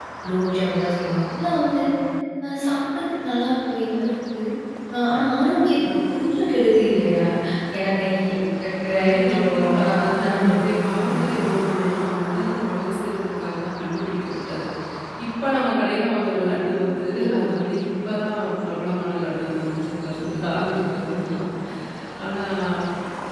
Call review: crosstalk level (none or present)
present